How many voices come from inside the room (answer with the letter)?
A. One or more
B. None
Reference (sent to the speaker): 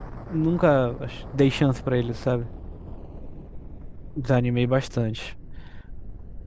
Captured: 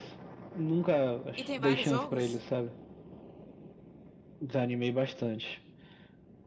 A